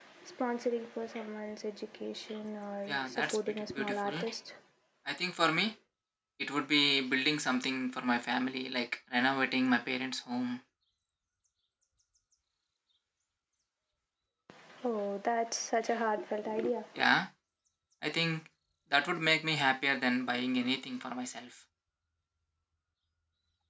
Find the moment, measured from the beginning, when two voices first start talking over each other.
2.9 s

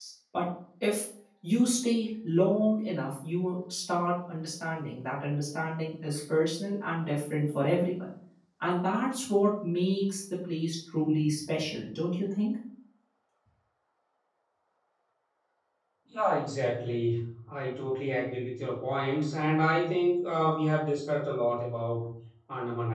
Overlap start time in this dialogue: none

